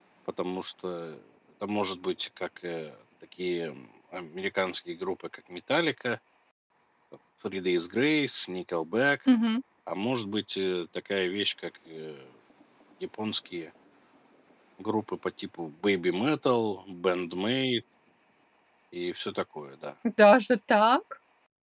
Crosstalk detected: No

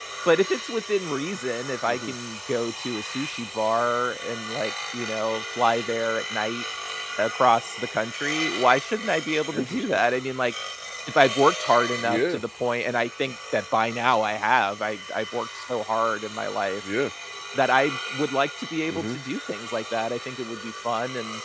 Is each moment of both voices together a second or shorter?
Yes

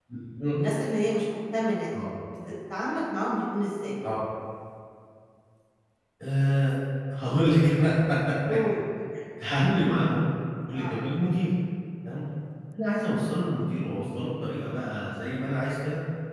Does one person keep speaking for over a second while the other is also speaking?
No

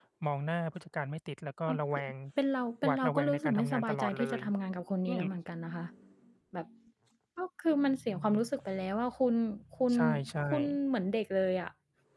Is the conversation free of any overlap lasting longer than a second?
No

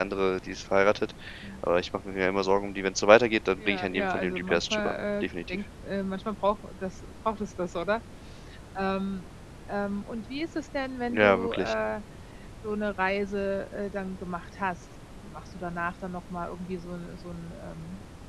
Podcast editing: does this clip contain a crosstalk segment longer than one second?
Yes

